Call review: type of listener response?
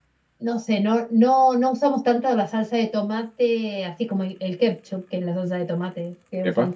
listening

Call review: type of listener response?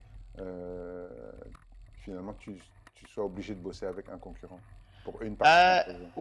taking over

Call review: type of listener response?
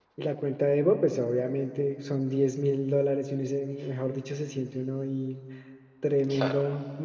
listening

